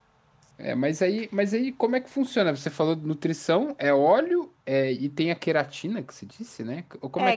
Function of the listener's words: taking over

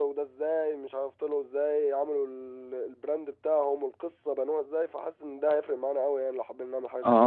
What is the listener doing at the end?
taking over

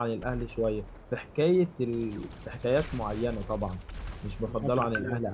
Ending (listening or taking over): taking over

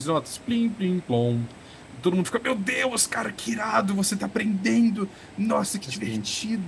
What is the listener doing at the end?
taking over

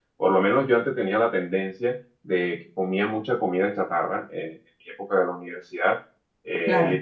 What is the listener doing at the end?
listening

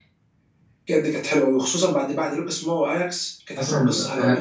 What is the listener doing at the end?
taking over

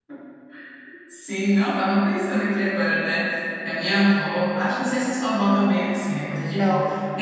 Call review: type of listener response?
listening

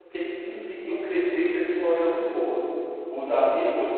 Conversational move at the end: listening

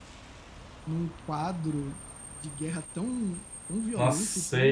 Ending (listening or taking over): taking over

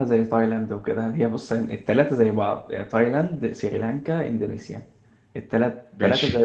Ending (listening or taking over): listening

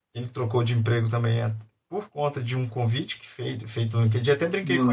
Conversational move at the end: listening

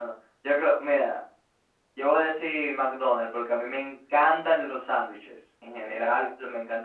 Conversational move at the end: listening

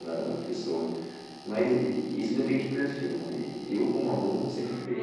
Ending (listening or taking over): listening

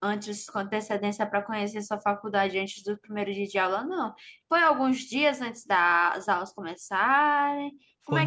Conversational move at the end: taking over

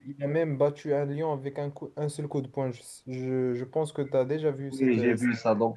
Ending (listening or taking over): taking over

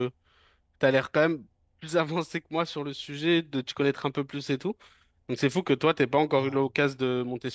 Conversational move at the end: listening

